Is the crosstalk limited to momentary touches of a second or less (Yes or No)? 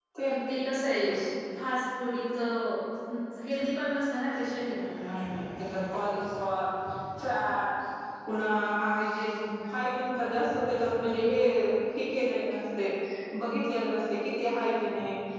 Yes